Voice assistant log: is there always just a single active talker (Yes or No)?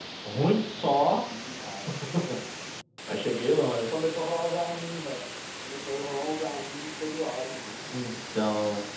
Yes